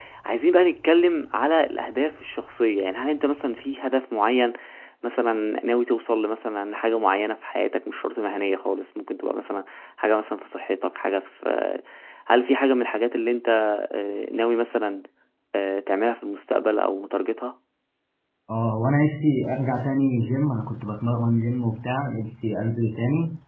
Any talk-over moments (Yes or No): No